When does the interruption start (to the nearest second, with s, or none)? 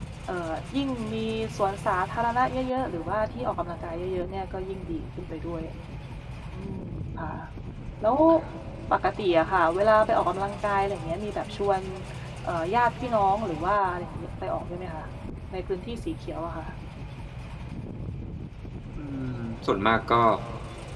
none